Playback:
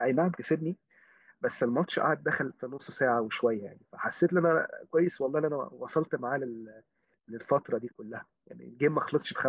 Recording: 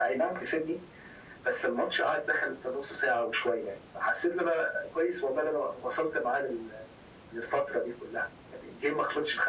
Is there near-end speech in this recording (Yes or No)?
No